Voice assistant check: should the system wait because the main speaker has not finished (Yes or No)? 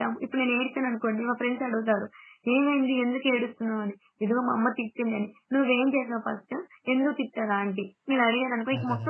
No